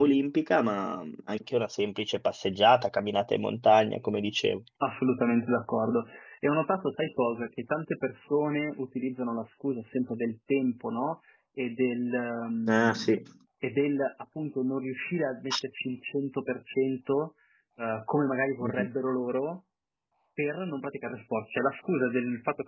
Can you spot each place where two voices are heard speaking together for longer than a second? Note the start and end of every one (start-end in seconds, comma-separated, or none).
none